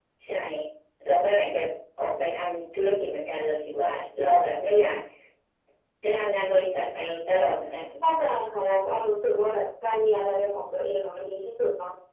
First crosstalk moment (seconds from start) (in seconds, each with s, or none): none